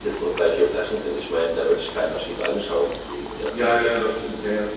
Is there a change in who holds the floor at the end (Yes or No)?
Yes